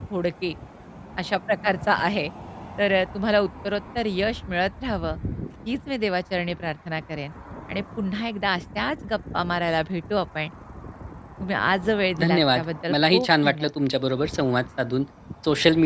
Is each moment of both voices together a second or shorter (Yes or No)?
No